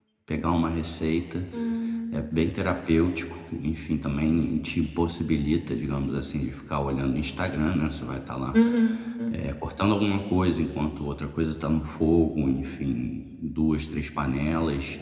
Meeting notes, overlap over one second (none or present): none